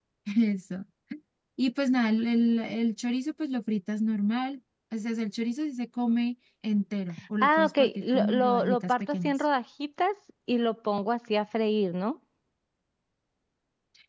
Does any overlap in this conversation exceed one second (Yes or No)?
Yes